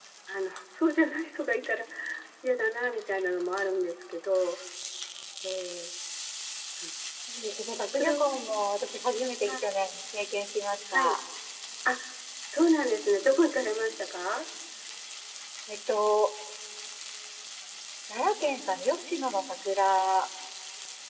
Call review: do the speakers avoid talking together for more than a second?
Yes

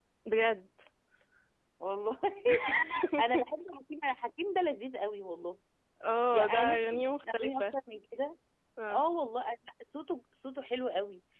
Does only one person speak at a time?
No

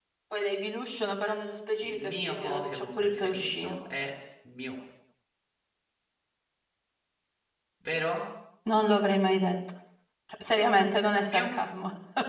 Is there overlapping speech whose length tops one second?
Yes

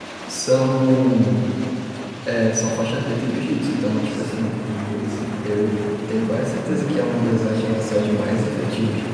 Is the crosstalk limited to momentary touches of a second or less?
Yes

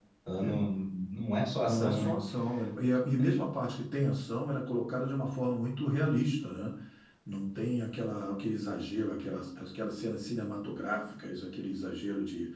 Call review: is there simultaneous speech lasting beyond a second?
No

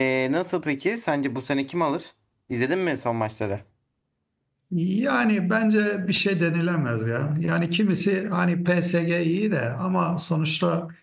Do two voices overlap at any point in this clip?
No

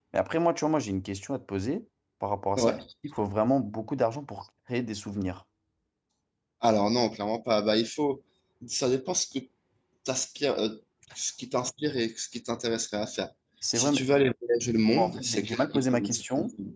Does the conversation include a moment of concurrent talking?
Yes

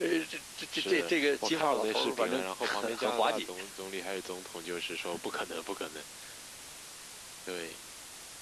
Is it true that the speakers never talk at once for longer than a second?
No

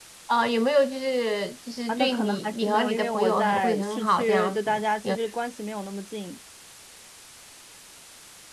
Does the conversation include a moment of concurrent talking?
Yes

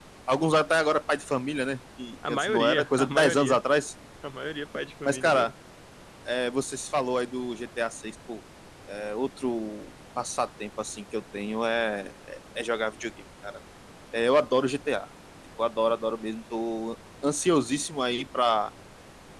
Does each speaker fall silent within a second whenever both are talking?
No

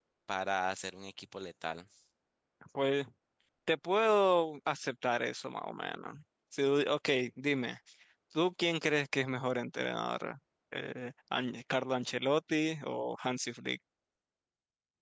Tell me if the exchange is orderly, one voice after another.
Yes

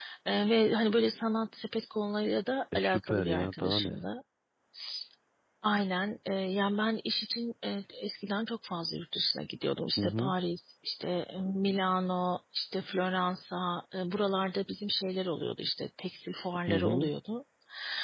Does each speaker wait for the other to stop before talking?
No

